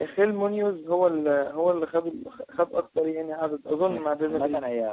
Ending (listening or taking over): taking over